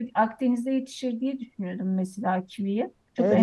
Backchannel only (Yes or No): No